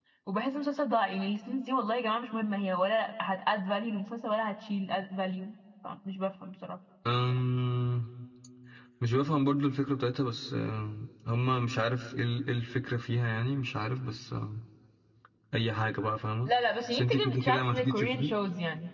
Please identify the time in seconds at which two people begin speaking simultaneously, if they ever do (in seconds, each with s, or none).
16.9 s